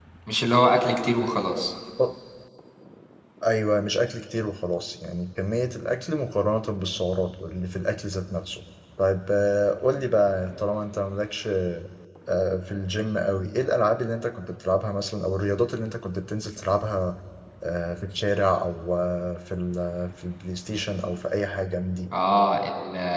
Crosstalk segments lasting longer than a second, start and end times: none

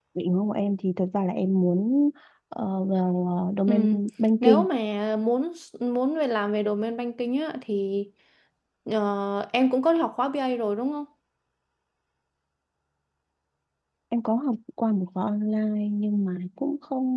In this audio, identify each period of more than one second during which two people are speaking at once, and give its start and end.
none

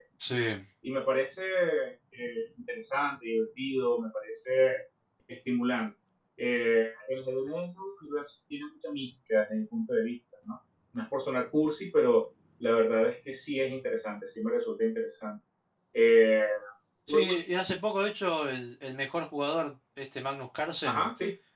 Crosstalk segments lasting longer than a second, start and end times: none

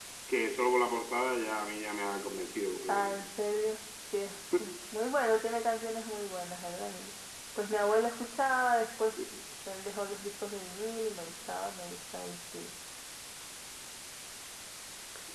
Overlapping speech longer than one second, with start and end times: none

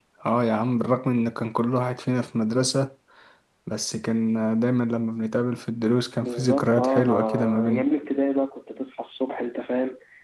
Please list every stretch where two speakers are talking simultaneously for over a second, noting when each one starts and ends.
6.2-7.8

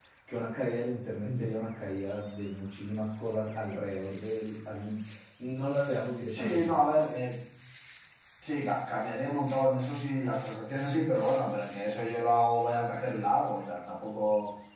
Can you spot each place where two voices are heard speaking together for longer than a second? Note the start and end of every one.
none

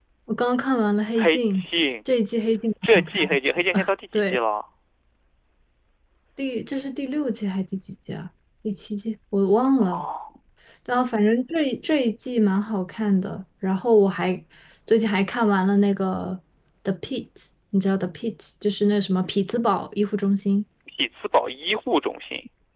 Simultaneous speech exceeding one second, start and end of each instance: none

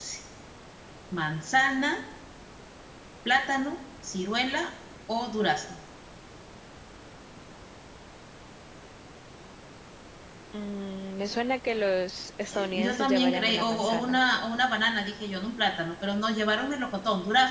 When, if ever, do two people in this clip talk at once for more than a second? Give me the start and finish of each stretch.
12.5-14.2

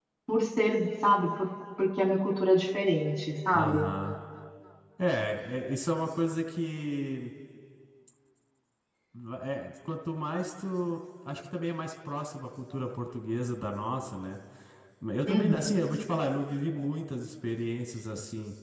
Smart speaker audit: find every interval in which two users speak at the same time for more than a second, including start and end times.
none

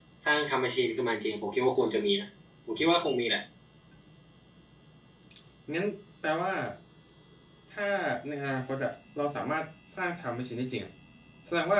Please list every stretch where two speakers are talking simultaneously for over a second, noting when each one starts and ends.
none

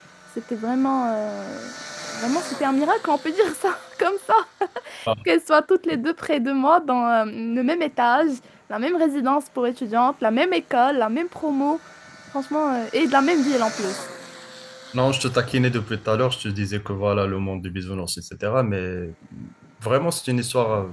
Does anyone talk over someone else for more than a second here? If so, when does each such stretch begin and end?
none

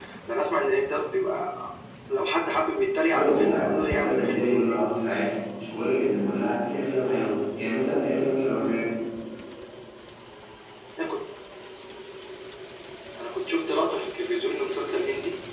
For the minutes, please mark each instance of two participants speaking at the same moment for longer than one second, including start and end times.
3.1-4.8

